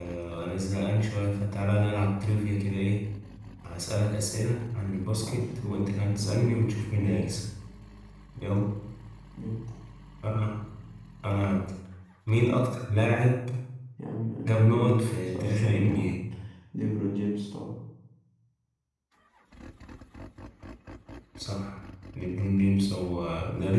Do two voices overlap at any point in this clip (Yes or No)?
Yes